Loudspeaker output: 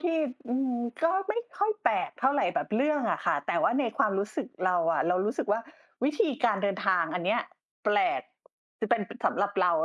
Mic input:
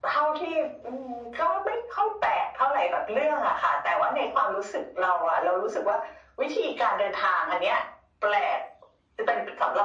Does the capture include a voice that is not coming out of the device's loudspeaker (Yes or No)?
No